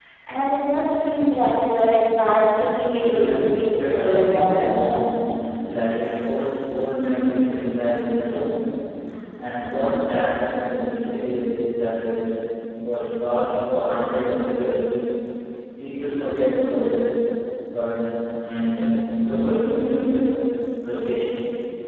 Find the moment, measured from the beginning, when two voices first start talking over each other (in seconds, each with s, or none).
3.0 s